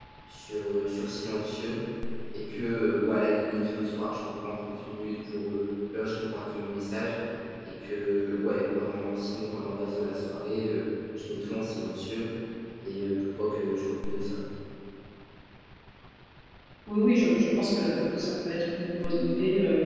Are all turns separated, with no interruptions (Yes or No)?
Yes